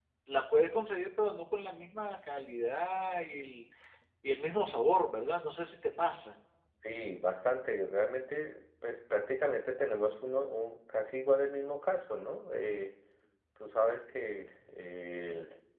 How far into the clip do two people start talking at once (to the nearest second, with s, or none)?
none